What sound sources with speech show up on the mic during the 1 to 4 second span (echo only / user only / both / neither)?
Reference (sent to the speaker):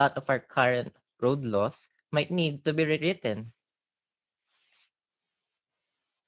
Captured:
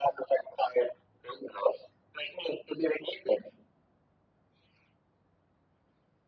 echo only